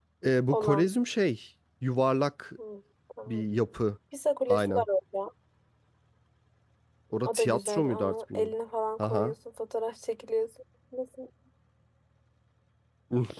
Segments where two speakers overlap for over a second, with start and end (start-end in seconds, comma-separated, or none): 7.2-8.5